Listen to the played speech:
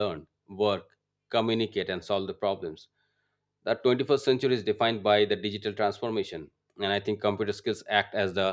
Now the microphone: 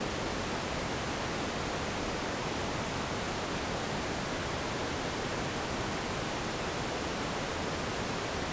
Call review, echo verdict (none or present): none